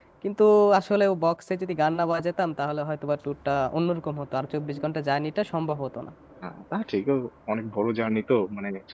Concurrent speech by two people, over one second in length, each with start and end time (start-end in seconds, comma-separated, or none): none